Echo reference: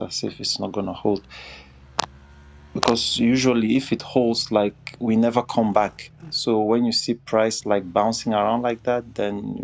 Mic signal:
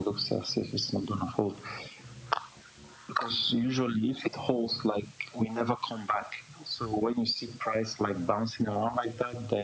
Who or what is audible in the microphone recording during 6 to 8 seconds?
echo only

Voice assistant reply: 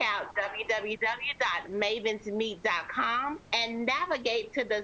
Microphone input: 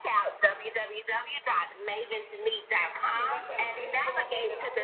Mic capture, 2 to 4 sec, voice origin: both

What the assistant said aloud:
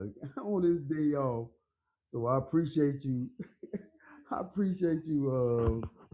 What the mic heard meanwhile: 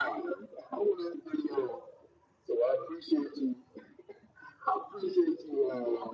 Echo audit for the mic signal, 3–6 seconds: echo only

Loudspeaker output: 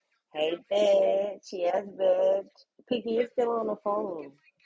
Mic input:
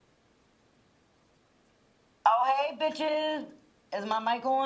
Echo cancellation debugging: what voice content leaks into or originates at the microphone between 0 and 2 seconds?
neither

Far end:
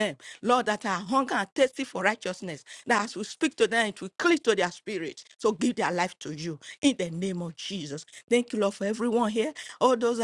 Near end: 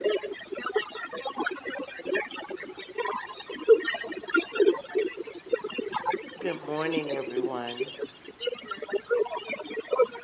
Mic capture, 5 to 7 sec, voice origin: both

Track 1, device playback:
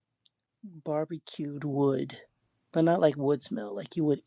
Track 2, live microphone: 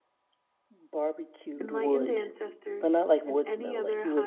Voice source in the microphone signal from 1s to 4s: both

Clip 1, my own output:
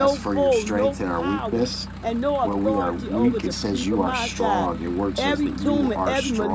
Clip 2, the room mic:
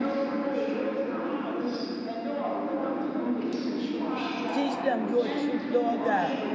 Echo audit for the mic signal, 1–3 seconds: echo only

